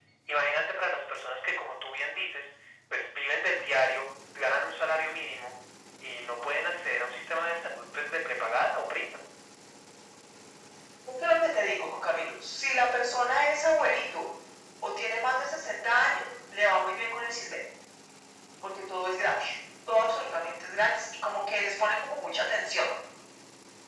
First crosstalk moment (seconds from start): none

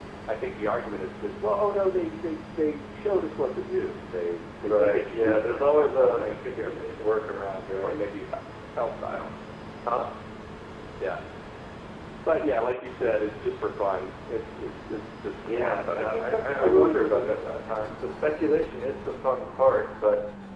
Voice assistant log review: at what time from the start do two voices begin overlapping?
4.6 s

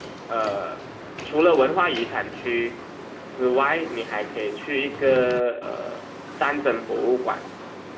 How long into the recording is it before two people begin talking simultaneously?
none

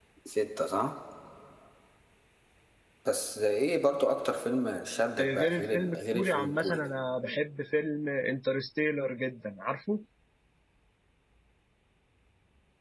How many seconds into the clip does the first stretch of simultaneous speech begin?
5.2 s

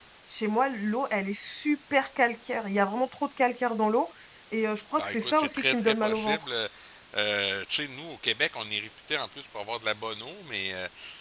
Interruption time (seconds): 5.0 s

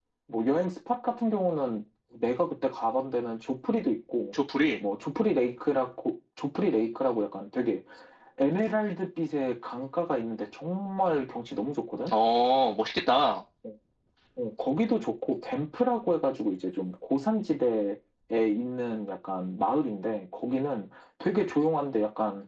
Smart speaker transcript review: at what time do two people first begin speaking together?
none

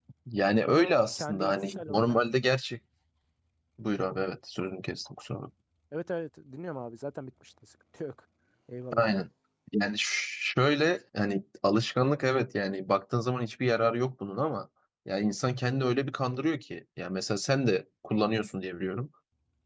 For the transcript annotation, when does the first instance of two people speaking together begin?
0.6 s

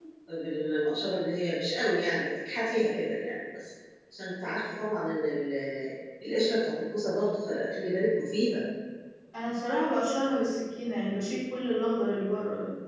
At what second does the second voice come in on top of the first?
none

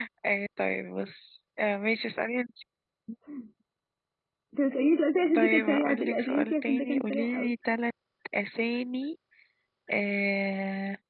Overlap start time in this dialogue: 5.4 s

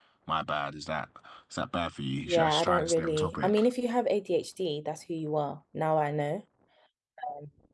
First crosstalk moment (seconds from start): 2.3 s

